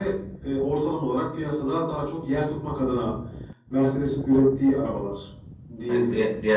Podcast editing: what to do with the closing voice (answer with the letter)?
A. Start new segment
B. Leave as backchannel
A